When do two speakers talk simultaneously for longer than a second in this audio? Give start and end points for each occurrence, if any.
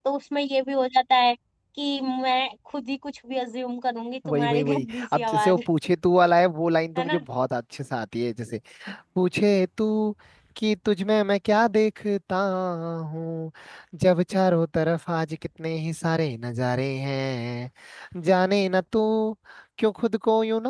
4.3-5.6

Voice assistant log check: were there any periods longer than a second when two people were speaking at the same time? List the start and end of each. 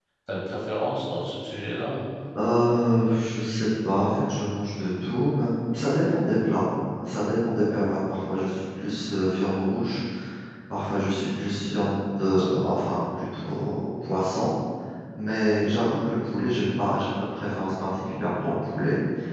none

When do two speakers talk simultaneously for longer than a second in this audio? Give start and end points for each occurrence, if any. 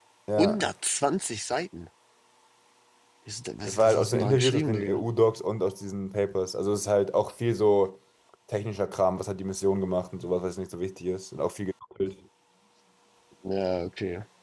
3.6-5.0

